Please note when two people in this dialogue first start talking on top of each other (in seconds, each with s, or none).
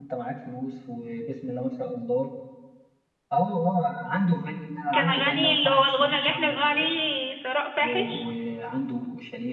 4.9 s